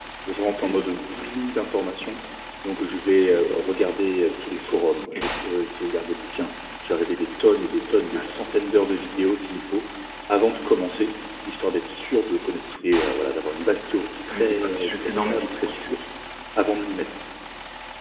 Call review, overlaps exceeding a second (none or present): present